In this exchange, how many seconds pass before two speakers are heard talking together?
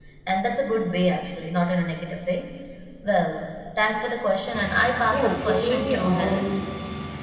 5.1 s

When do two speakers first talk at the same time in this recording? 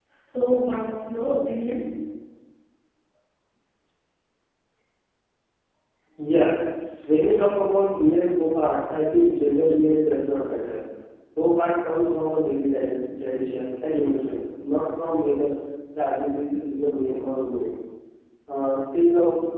none

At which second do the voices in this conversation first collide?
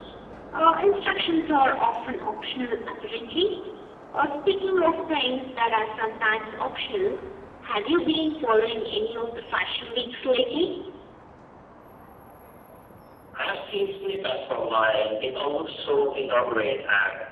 none

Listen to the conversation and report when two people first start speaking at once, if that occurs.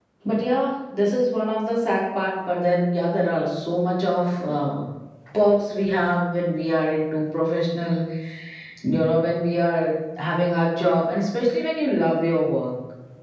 none

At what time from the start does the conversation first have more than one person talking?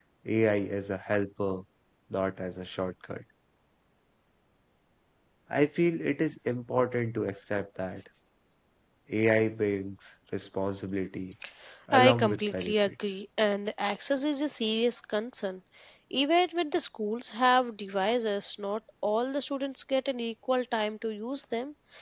11.9 s

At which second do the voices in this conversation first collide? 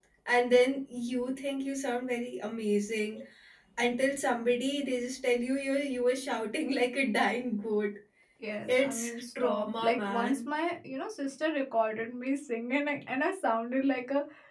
8.8 s

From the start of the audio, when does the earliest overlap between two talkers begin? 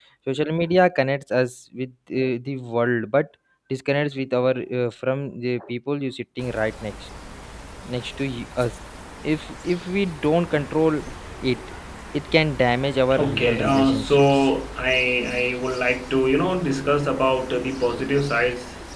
13.1 s

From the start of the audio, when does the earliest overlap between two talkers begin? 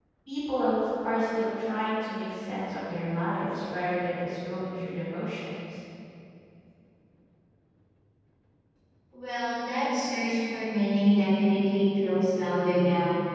none

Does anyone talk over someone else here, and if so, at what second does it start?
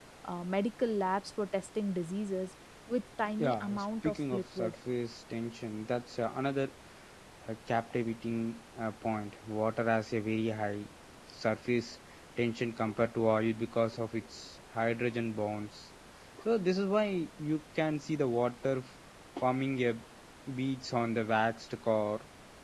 3.4 s

